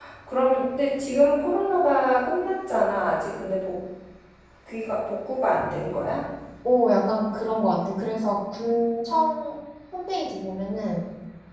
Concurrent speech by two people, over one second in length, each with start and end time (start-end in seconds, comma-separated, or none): none